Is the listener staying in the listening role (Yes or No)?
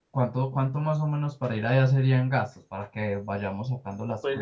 No